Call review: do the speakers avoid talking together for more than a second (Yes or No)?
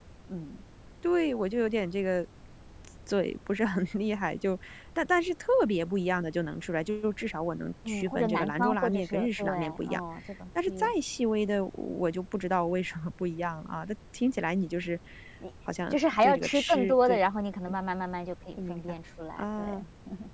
No